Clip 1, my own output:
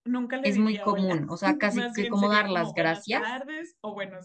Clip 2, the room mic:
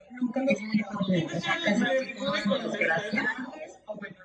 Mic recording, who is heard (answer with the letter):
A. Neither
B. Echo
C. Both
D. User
C